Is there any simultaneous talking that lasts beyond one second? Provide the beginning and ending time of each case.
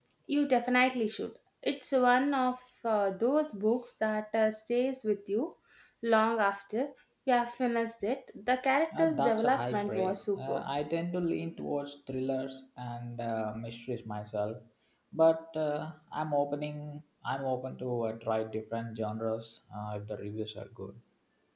9.0-10.6

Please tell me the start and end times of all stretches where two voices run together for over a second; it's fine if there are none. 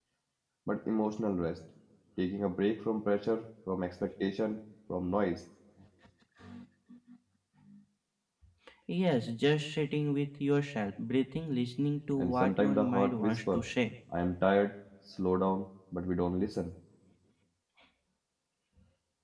12.2-13.7

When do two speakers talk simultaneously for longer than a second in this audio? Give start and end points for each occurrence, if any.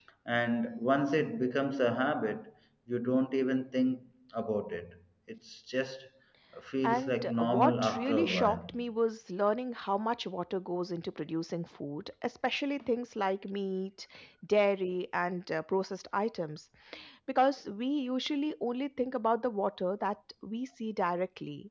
6.8-8.7

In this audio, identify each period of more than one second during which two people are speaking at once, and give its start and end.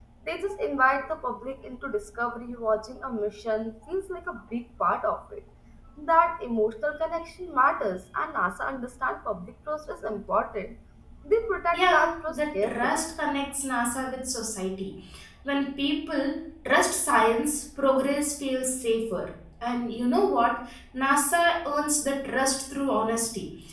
11.7-13.0

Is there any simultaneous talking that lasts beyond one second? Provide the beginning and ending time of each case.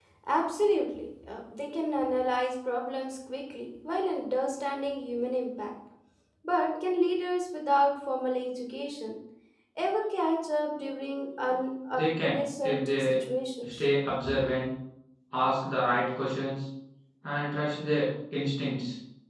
11.9-13.2

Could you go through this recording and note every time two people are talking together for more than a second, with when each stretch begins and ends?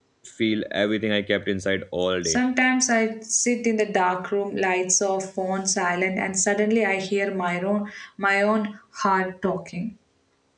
none

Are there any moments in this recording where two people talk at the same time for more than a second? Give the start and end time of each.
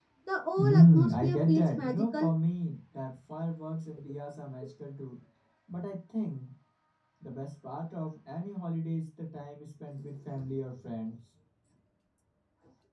0.6-2.3

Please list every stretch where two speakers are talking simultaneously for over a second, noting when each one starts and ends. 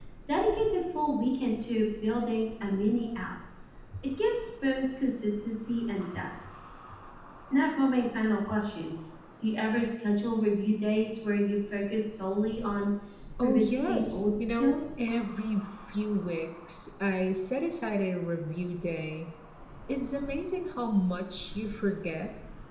13.4-14.7

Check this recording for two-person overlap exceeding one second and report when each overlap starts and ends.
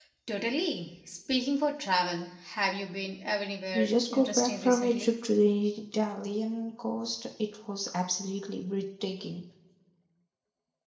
3.7-5.1

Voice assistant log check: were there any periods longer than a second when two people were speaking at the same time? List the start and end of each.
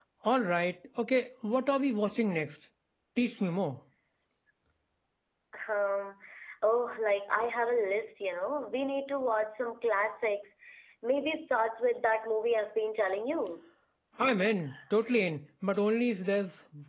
none

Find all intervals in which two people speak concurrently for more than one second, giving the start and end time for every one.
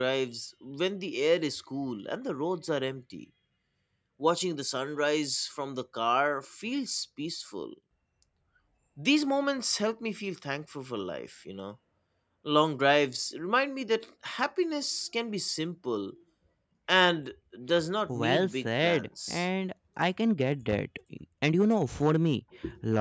18.1-19.4

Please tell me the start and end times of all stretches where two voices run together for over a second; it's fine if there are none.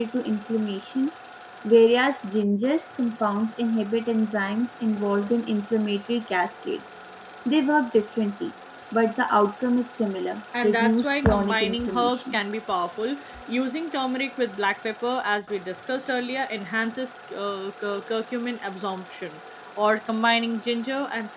10.6-12.4

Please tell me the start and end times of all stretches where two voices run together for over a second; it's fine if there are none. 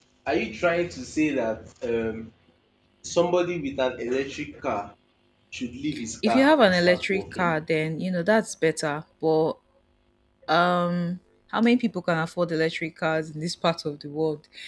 6.3-7.6

